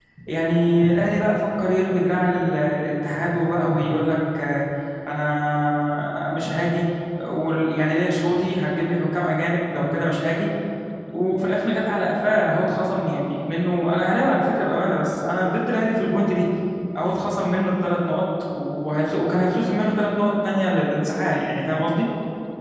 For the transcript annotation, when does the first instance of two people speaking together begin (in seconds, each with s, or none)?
none